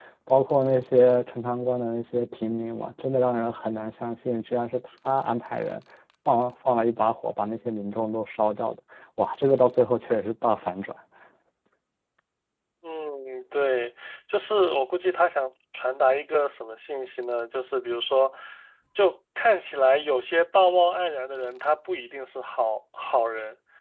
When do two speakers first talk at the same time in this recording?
none

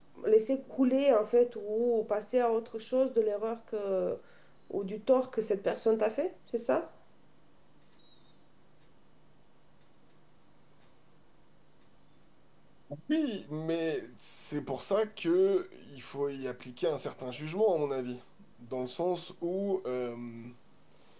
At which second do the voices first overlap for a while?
none

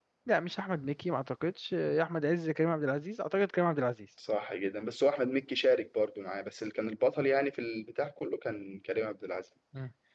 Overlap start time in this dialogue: none

